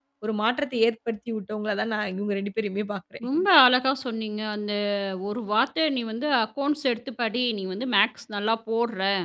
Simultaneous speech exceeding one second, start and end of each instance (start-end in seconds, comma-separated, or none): none